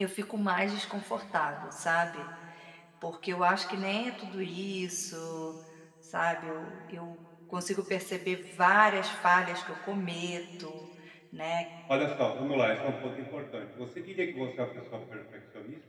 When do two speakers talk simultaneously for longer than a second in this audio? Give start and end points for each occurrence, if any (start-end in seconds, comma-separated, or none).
none